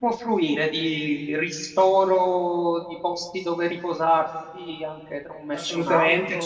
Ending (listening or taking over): taking over